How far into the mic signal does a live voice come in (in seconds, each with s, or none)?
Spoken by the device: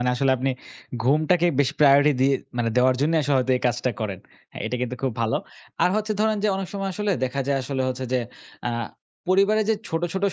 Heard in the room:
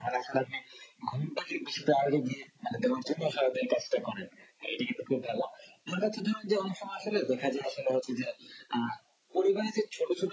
none